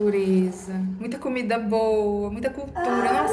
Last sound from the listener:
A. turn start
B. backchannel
B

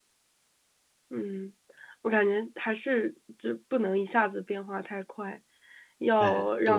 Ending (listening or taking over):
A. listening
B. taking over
A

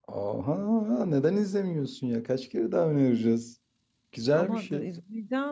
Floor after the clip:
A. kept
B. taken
B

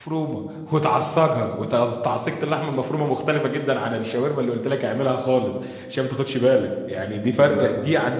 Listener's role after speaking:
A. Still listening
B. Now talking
A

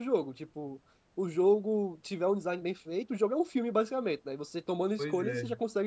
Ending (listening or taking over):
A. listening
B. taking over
A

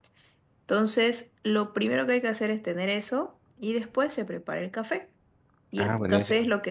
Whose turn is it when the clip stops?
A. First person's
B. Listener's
A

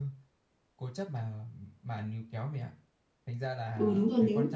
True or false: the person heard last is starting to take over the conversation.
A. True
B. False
A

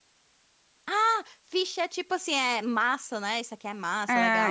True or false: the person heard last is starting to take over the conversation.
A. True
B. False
A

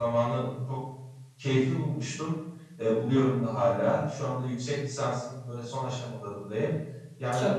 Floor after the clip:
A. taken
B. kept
B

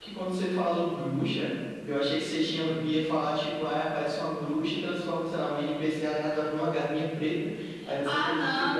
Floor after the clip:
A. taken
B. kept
A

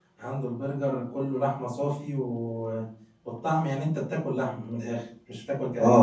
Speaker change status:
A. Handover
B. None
A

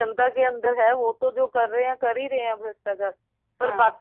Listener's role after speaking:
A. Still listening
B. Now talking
A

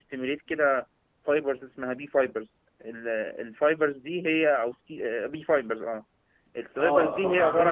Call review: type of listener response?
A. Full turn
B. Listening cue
A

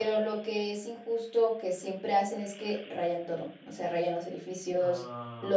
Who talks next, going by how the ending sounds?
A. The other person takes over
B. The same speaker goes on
B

